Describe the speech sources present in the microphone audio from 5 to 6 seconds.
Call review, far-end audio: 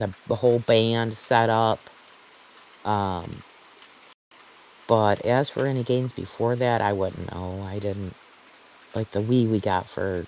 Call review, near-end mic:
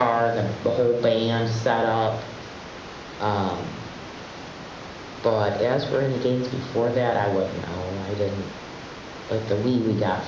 echo only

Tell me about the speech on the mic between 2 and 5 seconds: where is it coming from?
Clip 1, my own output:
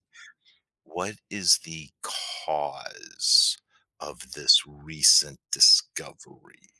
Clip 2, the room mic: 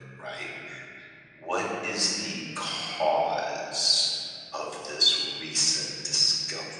echo only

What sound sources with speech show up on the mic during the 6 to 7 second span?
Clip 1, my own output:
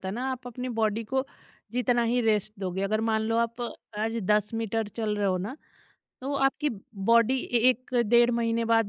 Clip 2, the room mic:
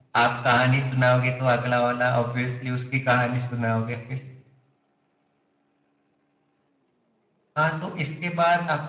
neither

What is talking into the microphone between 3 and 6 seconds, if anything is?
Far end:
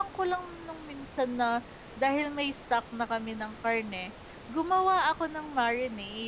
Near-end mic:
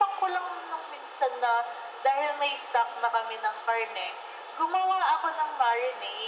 echo only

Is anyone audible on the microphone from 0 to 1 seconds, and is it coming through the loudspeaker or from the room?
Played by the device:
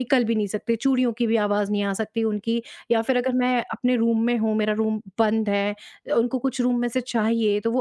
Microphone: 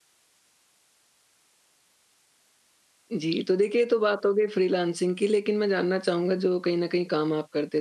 neither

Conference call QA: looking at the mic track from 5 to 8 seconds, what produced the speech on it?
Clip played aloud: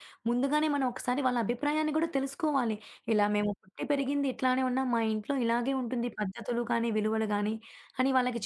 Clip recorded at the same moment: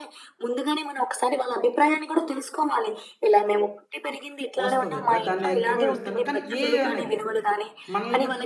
both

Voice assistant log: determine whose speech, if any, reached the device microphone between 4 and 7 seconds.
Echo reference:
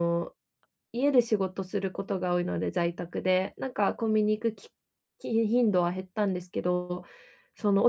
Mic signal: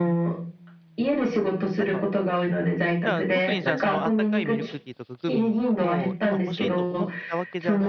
both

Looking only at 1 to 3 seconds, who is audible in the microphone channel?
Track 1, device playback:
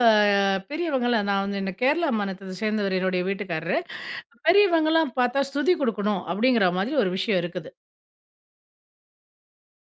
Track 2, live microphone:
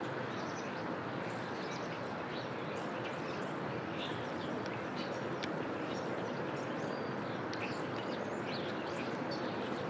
neither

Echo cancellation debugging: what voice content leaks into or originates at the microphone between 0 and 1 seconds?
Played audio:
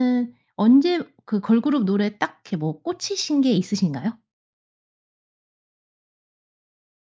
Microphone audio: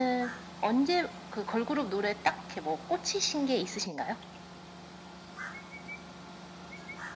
echo only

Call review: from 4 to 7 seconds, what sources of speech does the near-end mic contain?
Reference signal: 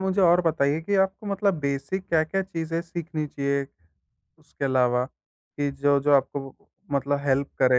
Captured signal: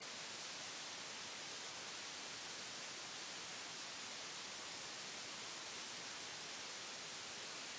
neither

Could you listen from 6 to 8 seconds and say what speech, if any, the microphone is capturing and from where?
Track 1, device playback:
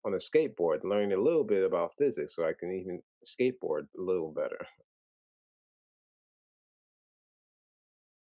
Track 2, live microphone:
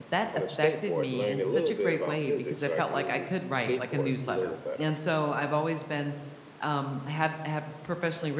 user only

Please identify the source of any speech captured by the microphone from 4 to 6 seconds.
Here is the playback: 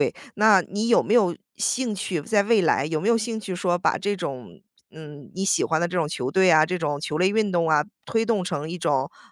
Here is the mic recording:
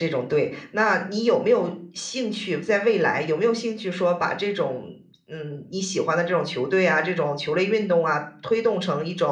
echo only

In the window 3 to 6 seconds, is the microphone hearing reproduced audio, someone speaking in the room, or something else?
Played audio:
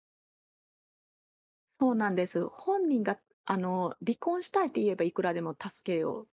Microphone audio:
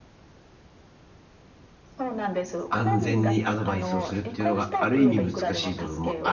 both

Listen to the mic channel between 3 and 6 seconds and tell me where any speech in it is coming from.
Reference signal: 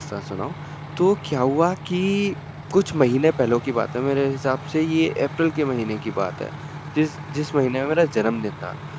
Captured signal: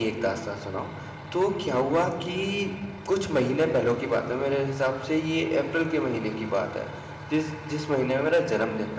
echo only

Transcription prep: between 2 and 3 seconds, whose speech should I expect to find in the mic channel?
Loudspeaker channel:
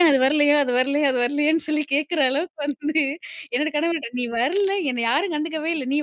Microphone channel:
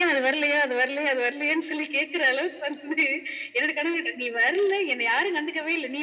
echo only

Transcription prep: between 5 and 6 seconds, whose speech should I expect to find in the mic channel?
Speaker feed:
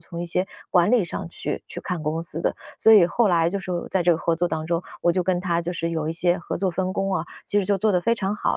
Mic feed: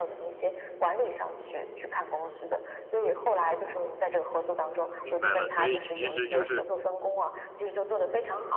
both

